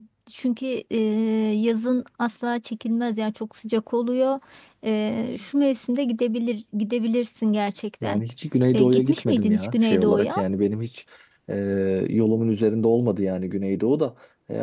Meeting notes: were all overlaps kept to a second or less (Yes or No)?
No